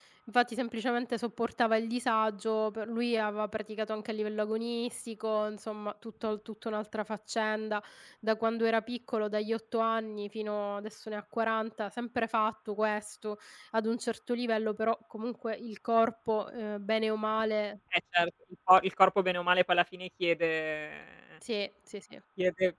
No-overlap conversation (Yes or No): Yes